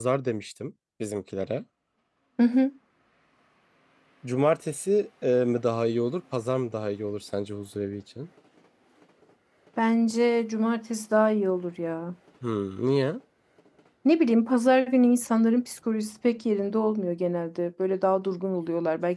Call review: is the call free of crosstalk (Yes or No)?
Yes